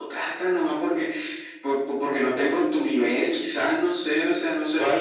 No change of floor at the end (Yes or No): No